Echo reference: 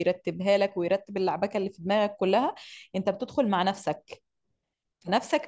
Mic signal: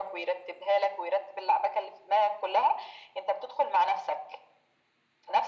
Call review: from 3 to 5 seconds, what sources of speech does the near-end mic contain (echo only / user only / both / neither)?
echo only